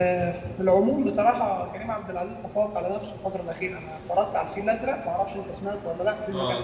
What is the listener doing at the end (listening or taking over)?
taking over